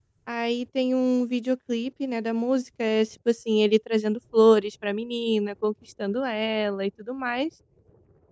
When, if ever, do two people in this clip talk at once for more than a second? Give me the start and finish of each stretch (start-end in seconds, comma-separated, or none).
none